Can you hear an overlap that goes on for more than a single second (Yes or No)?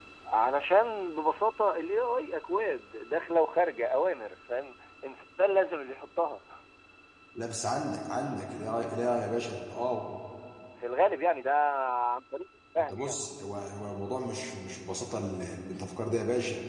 No